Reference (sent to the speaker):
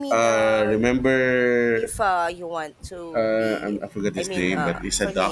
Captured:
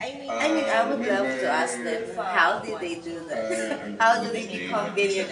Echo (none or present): present